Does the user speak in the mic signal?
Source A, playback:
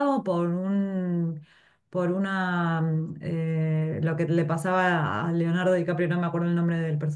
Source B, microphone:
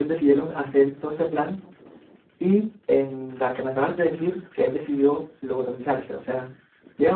Yes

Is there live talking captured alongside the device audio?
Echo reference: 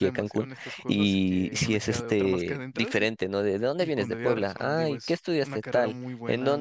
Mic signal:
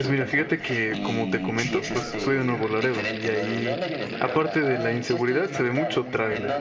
Yes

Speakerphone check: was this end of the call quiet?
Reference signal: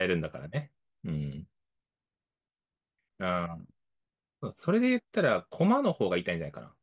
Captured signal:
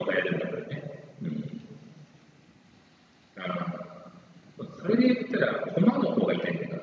Yes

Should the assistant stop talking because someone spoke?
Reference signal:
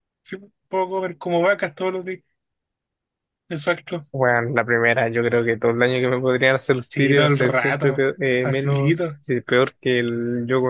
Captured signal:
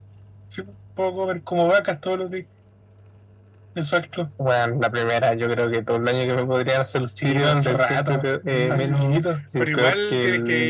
Yes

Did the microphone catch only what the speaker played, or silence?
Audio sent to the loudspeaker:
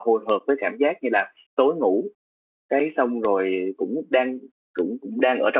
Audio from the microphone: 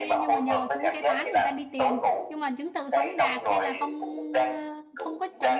No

